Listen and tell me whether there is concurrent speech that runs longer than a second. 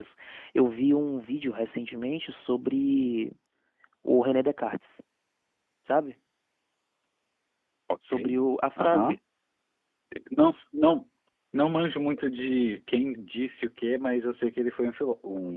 No

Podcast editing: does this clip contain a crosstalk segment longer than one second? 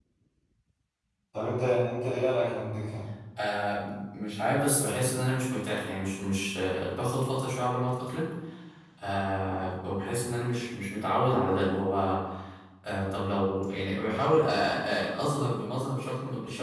No

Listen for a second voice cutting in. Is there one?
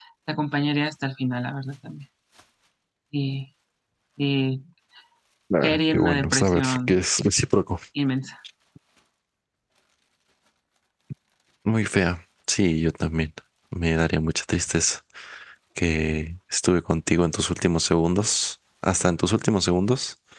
Yes, from 5.6 s

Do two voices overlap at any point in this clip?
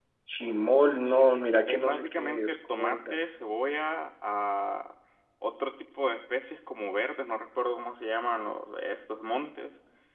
Yes, from 1.6 s

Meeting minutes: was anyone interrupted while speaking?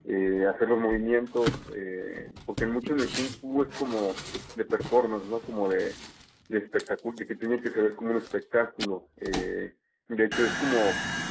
No

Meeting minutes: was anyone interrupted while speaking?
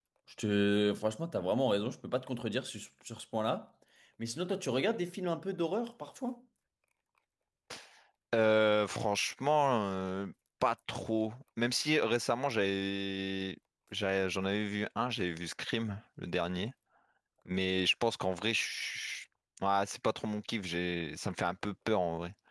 No

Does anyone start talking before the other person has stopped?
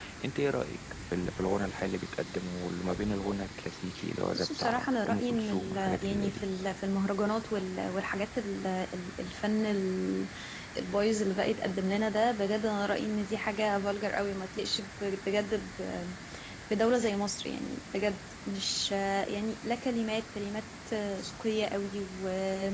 Yes, from 4.3 s

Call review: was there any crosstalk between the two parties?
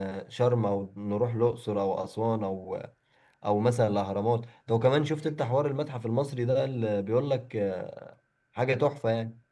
No

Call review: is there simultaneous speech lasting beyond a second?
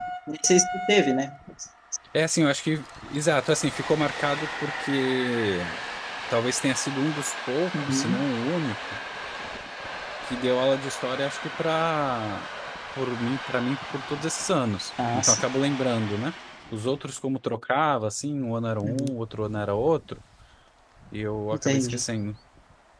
No

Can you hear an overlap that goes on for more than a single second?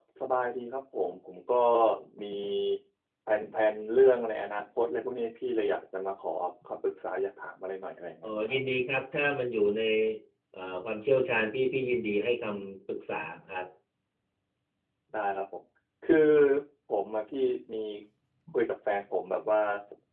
No

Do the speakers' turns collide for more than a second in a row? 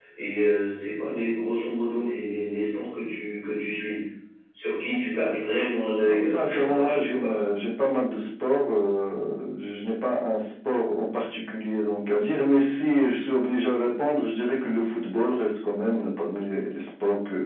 Yes, from 6.0 s

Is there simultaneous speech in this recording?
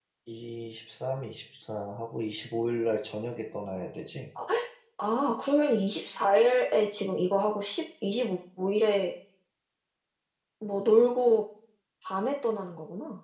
No

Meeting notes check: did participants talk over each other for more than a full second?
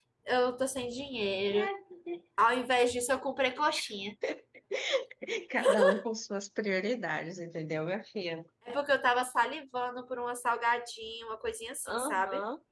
No

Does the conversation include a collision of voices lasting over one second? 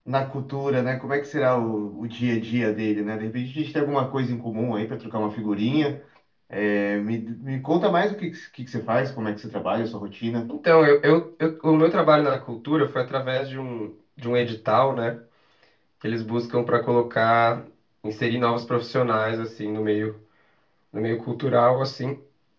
No

